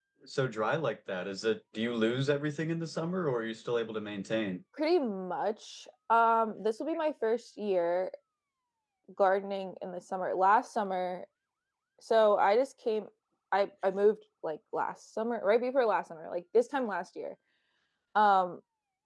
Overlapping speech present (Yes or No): No